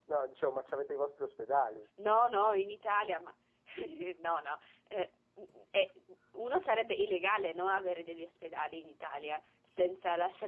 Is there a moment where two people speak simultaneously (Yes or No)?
No